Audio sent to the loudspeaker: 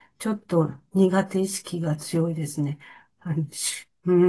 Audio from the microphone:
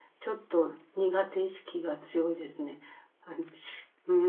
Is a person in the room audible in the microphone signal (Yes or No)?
No